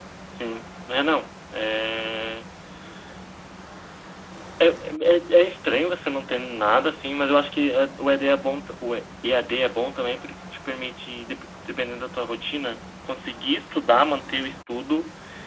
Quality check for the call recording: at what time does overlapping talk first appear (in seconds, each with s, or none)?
none